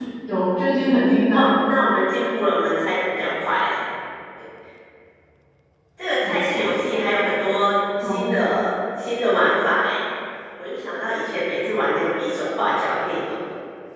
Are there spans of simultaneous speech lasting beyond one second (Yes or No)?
No